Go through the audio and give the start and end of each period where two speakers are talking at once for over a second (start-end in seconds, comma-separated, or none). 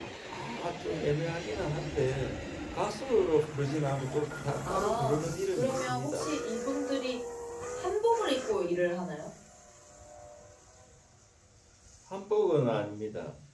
4.6-6.3